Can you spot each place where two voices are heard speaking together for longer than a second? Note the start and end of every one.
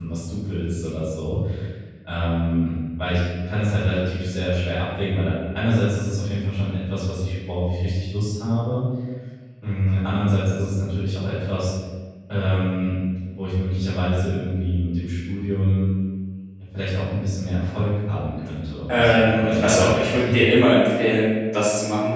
18.9-20.2

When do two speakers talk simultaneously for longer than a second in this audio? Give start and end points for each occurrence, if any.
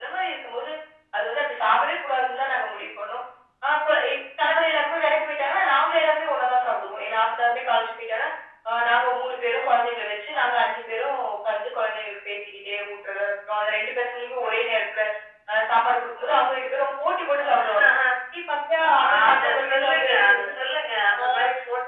19.2-20.5

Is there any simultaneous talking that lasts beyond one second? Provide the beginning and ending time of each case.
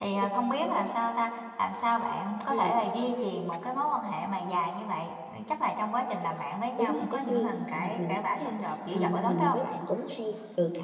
6.8-9.6

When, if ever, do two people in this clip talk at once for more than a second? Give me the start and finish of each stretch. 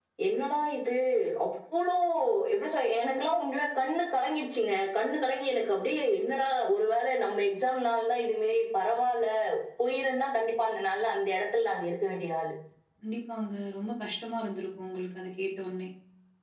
none

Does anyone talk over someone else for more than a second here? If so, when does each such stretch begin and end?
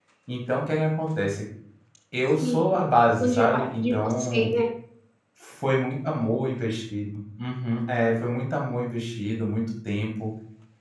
3.2-4.5

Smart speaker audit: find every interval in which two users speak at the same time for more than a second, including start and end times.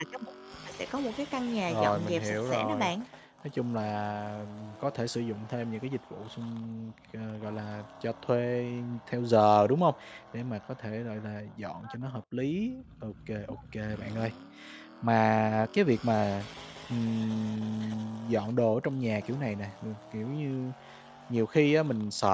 1.7-2.9

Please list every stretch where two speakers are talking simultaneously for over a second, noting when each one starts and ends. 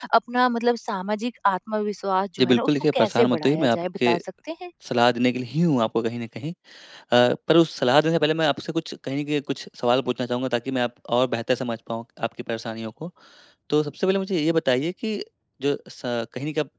2.4-4.2

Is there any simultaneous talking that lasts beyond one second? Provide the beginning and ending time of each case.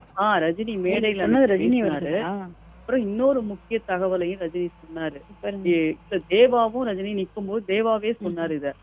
0.9-2.1

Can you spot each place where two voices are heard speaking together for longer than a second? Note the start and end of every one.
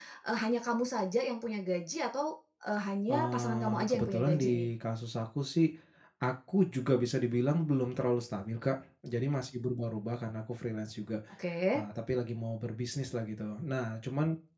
3.1-4.7

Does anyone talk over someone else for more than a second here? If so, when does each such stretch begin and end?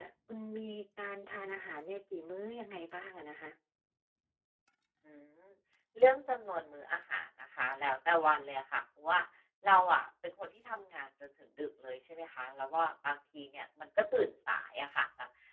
none

